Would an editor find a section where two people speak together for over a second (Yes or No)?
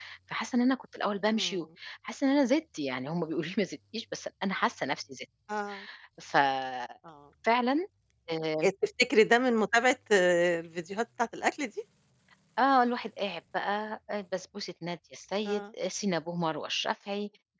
No